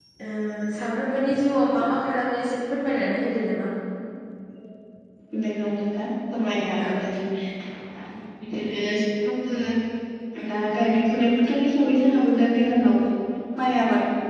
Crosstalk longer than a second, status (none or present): none